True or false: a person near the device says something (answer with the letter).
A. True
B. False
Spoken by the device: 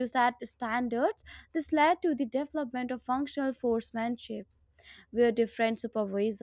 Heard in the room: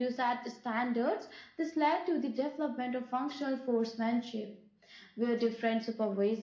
B